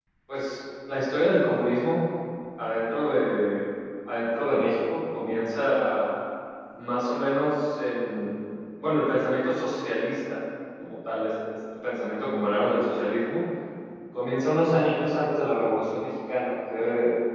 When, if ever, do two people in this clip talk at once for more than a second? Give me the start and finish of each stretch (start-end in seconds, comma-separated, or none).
none